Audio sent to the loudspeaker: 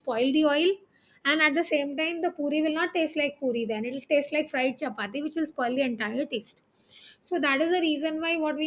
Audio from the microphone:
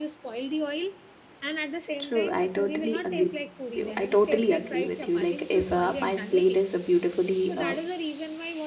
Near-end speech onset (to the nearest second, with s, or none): 2 s